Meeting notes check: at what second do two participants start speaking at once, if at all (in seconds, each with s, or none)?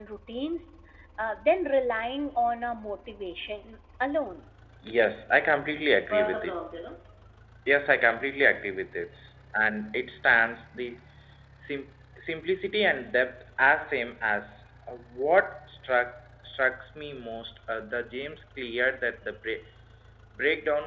none